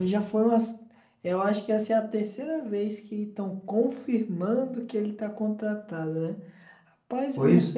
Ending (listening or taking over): listening